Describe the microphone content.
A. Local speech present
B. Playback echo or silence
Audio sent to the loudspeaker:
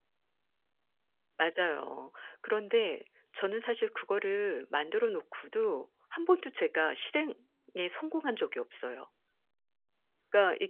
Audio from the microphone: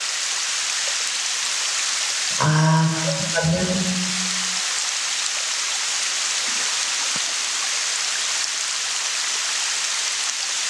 A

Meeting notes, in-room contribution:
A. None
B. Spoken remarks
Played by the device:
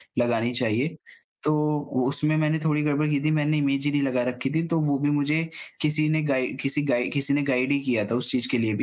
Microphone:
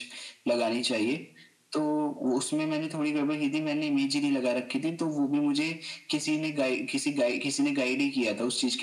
A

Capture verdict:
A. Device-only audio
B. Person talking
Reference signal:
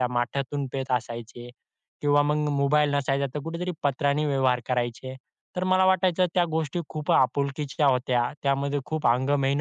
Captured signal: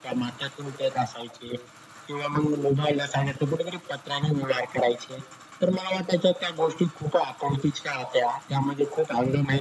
A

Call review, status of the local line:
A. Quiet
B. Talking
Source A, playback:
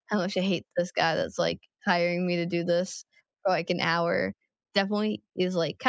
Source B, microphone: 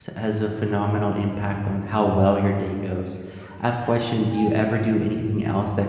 B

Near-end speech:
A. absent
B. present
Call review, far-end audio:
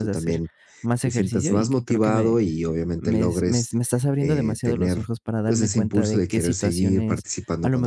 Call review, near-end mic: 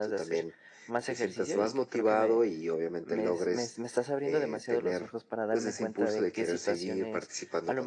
A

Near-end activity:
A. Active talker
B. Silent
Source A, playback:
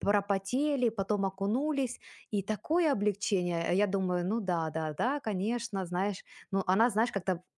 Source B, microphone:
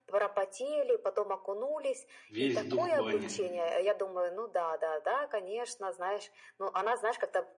A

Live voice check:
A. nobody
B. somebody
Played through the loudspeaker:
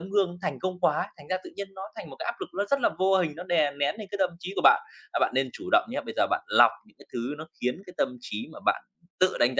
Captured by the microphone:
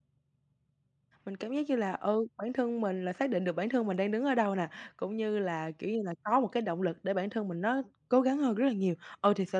B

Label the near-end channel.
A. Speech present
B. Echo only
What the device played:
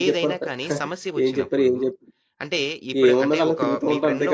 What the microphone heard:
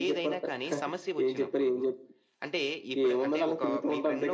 B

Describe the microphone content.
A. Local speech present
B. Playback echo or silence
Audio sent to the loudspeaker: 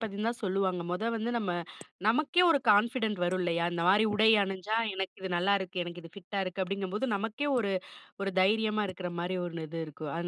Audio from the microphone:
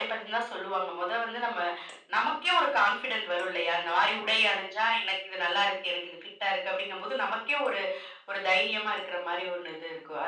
B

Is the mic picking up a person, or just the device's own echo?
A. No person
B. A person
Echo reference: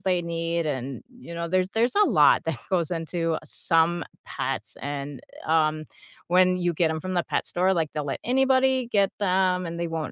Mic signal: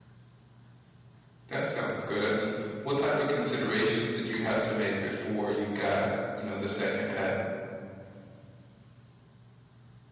B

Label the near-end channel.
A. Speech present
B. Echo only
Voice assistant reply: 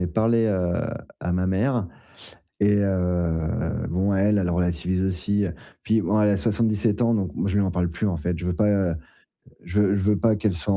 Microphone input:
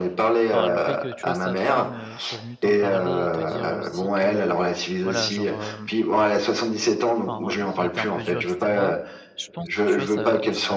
A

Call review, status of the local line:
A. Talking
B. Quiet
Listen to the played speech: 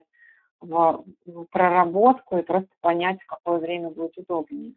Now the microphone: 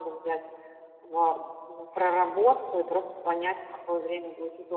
B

